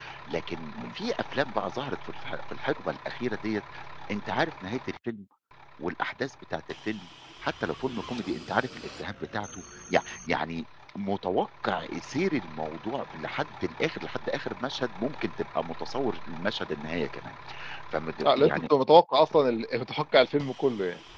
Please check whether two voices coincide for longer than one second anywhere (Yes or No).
No